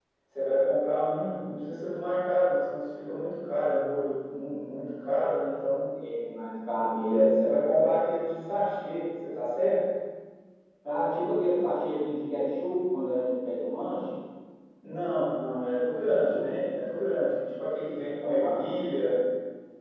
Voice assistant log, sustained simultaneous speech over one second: none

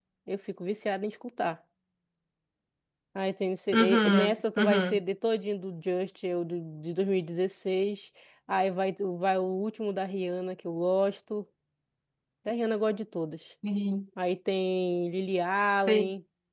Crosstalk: present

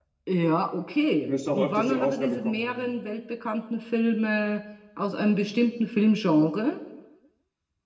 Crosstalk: present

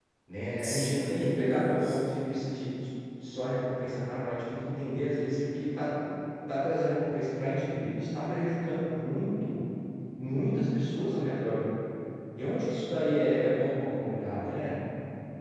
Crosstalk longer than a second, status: present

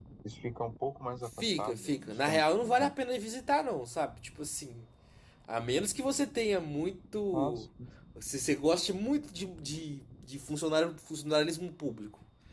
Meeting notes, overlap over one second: present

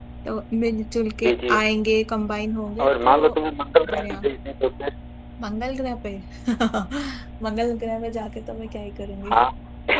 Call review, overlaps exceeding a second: none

